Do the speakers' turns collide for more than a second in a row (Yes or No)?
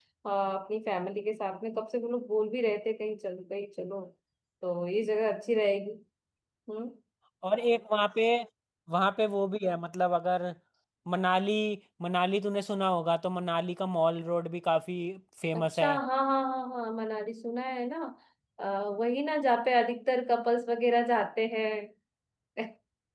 No